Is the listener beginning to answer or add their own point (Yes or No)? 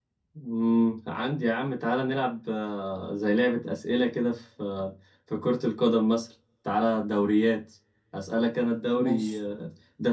No